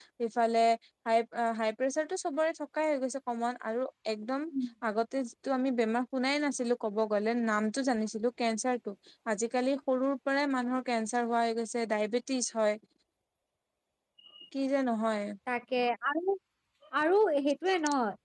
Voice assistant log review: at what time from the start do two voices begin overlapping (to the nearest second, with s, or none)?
none